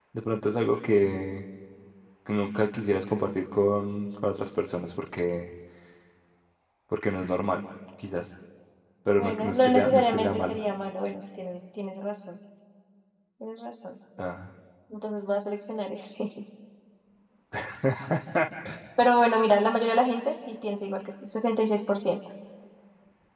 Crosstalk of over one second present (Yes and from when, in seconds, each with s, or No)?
Yes, from 9.2 s